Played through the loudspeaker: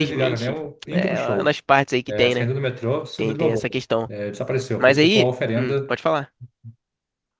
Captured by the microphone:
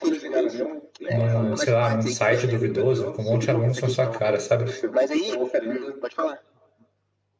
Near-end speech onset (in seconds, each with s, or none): 1.1 s